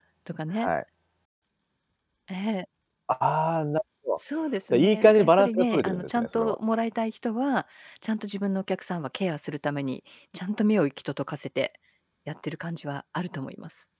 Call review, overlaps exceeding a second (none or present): present